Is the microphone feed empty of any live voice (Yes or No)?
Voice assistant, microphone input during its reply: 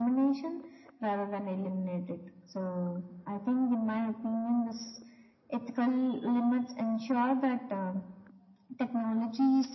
Yes